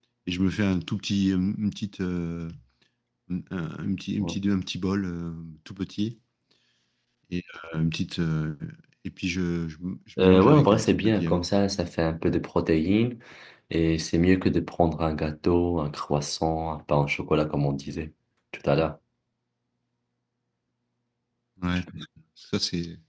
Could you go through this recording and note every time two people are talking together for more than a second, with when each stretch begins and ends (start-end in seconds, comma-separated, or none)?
10.2-11.5